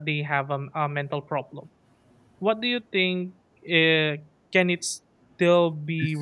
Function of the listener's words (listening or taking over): taking over